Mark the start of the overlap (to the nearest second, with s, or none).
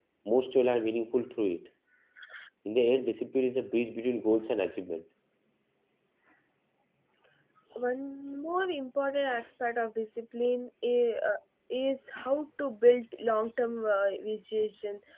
none